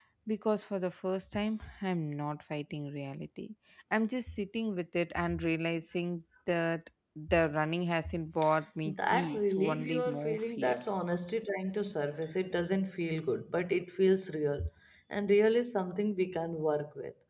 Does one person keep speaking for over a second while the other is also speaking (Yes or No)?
Yes